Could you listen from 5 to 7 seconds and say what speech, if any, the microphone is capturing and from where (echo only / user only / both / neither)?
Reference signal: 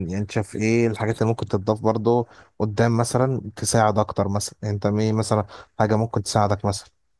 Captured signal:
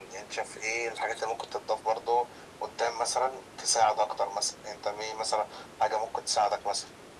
echo only